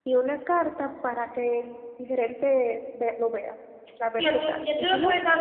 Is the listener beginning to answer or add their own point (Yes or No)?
Yes